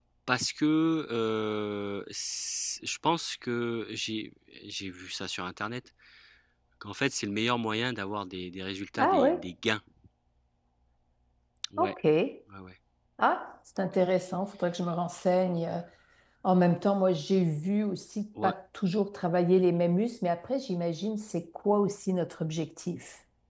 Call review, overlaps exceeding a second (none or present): none